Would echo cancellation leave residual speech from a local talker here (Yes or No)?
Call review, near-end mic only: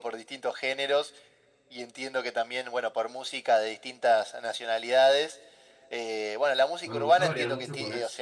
Yes